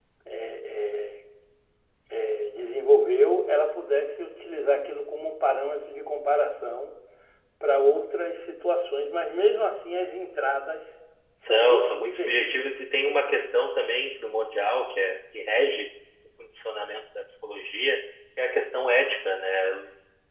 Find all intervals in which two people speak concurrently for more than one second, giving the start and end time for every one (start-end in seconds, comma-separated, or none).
11.5-12.7